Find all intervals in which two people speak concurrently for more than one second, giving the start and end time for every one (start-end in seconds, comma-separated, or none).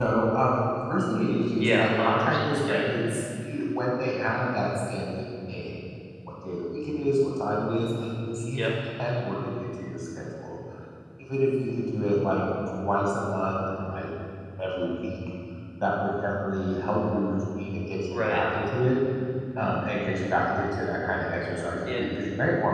1.6-2.8